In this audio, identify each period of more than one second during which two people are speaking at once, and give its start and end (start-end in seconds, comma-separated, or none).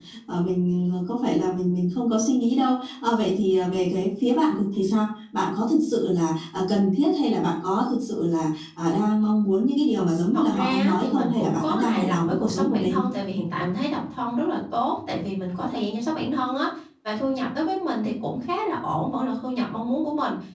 10.3-13.0